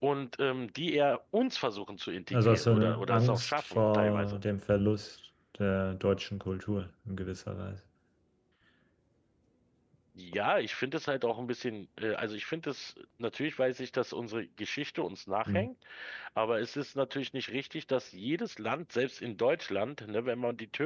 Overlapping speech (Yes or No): Yes